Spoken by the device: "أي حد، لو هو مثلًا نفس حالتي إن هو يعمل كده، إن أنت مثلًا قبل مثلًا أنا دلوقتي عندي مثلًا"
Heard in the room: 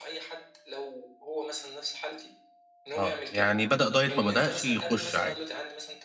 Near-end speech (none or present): present